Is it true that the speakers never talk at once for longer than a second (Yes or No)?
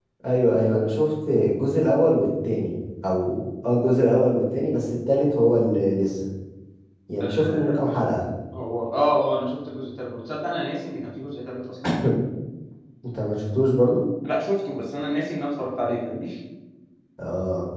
Yes